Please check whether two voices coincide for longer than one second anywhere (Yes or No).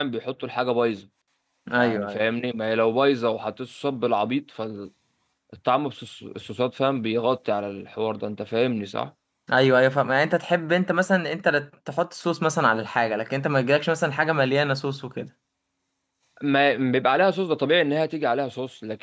No